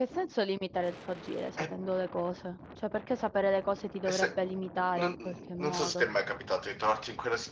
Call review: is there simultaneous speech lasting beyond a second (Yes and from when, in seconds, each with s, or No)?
No